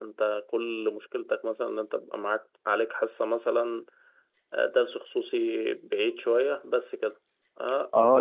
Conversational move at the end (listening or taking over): taking over